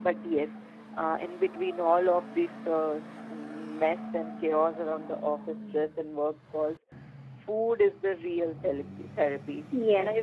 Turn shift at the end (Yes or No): Yes